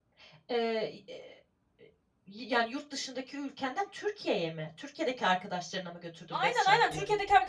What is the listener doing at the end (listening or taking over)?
taking over